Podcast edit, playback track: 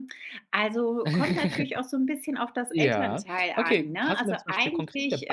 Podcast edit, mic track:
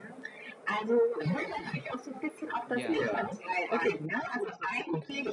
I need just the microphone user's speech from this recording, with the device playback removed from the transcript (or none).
Ja,